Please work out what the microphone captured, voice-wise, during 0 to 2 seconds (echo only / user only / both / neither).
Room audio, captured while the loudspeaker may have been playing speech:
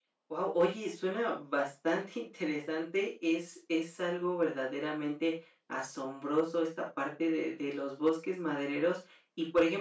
user only